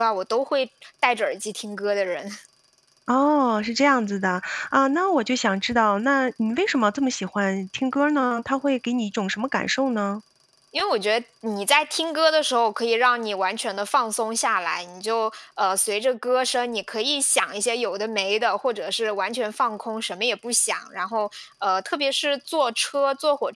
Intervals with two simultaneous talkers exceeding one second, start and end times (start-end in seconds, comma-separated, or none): none